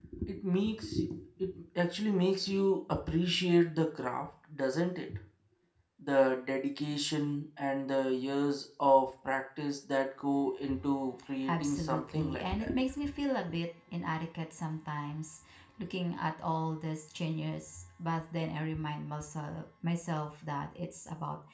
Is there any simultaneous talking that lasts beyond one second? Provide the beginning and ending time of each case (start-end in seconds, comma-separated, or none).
11.5-12.8